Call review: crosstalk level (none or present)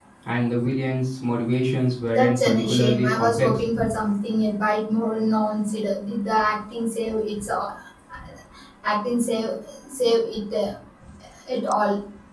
present